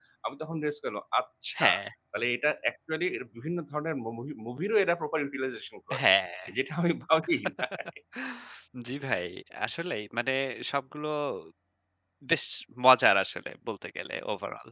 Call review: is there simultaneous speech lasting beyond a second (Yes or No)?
No